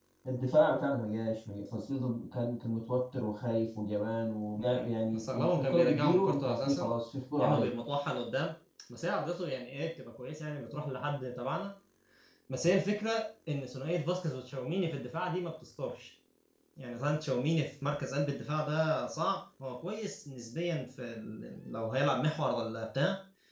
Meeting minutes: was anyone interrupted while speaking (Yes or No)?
Yes